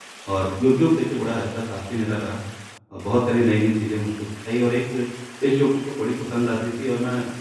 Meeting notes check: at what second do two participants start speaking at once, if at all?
none

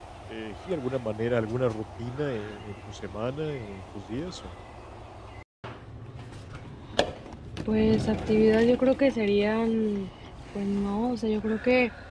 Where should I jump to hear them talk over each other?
none

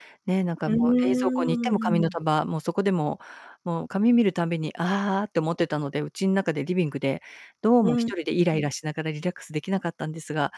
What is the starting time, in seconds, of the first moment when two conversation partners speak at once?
0.7 s

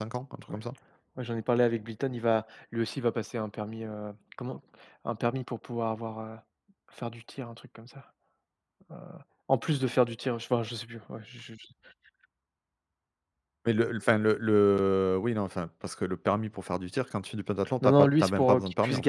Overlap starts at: 17.8 s

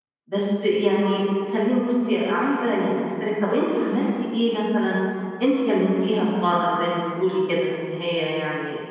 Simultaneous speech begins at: none

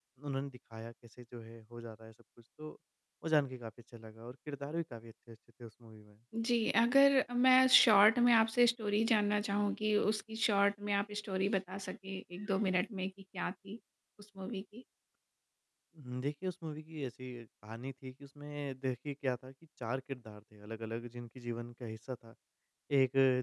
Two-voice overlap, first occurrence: none

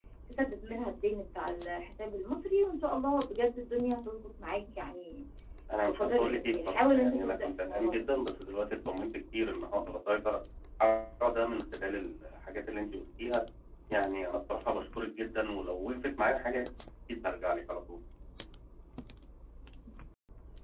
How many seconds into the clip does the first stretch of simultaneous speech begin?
5.8 s

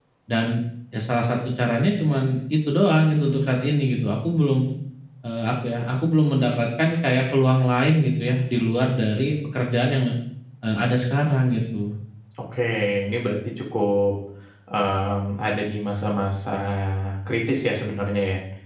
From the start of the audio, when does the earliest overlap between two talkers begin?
none

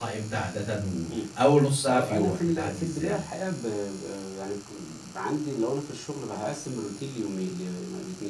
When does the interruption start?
1.9 s

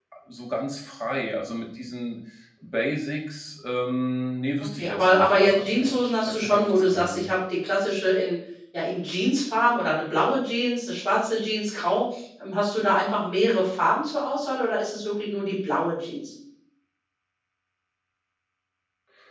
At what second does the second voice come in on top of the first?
4.8 s

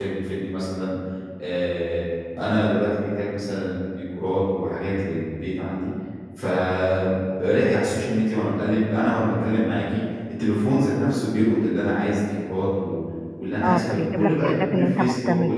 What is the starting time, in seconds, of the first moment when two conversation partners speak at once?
13.6 s

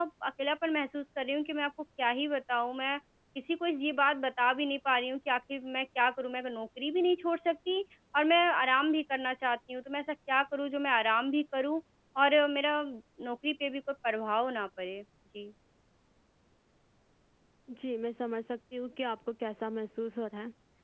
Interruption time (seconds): none

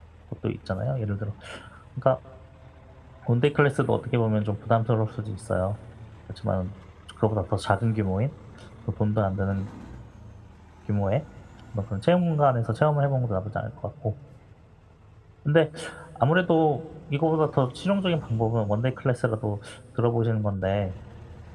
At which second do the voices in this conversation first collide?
none

